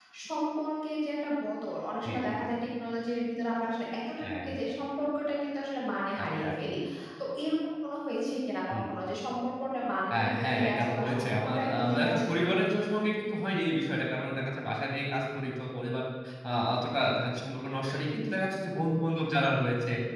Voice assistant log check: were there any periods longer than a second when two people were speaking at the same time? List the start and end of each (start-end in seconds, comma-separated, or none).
10.1-12.2